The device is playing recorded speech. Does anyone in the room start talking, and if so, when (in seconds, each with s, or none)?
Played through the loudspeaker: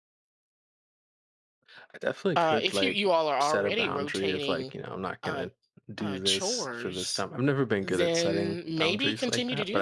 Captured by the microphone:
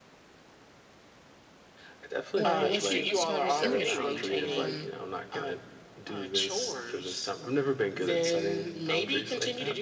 2.4 s